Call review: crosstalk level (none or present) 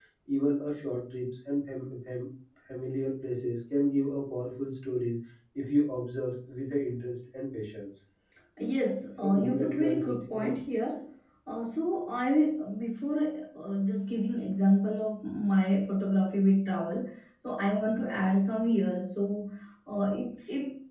present